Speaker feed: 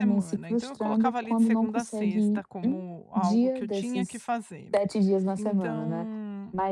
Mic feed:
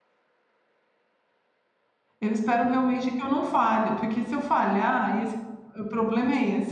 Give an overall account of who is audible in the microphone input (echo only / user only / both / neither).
user only